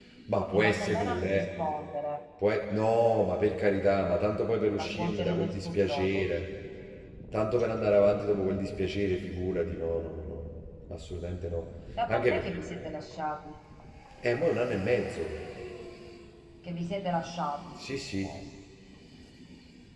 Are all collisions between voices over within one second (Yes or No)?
No